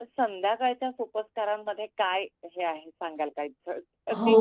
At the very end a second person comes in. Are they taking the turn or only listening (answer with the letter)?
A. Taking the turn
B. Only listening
A